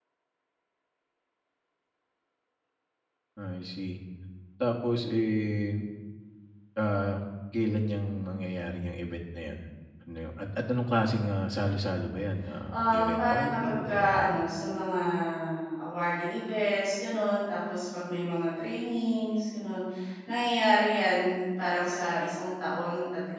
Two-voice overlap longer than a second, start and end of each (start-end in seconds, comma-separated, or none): 12.7-14.4